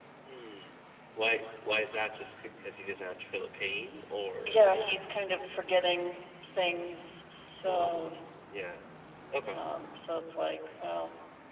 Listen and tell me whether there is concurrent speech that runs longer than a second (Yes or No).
No